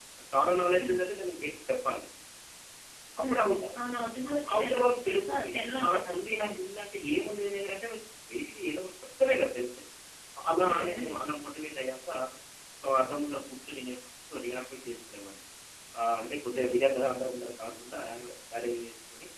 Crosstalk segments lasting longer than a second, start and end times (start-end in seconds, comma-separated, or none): 4.5-6.5